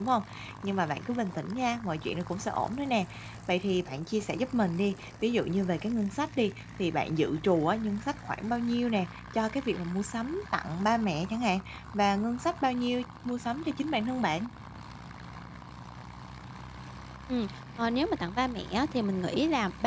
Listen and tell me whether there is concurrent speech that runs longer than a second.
No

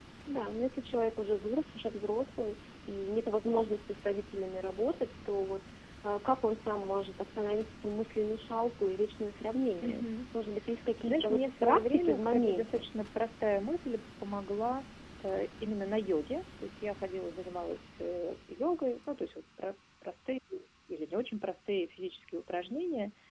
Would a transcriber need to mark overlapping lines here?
Yes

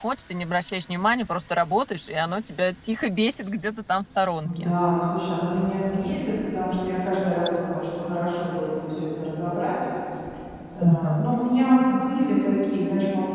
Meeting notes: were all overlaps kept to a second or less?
Yes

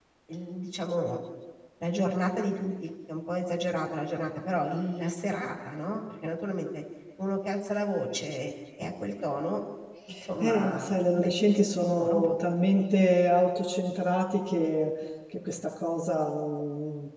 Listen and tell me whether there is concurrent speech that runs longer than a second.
Yes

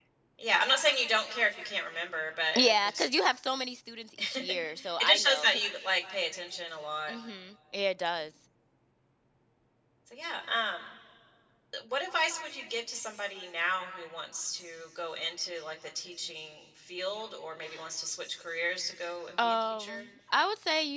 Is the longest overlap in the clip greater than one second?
Yes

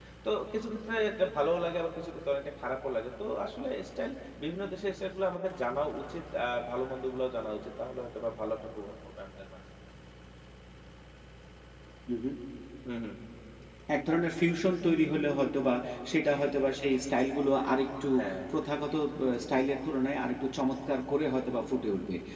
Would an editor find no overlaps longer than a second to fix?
Yes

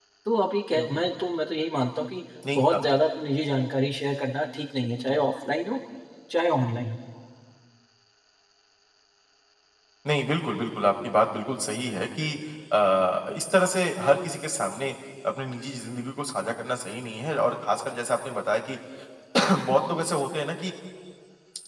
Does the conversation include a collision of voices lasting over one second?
No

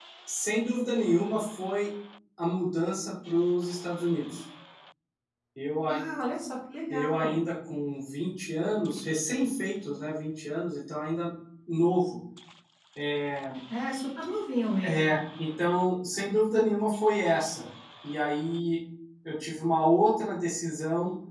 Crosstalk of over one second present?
No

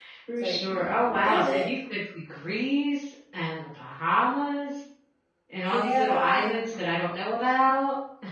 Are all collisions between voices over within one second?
No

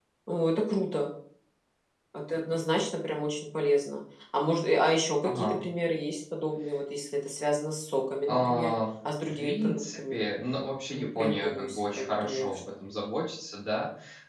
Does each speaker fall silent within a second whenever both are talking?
No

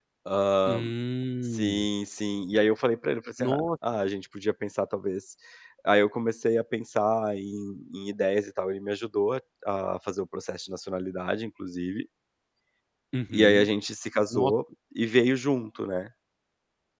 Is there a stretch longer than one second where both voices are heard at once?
No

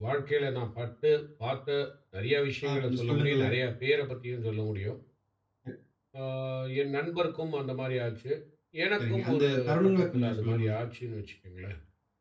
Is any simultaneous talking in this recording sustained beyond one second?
Yes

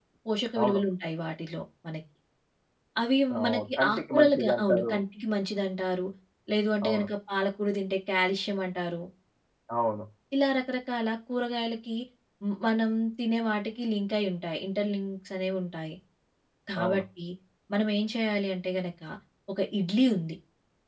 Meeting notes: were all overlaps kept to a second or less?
No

